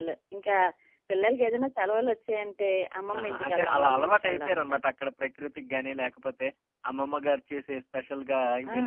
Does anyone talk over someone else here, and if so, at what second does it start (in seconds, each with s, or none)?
3.1 s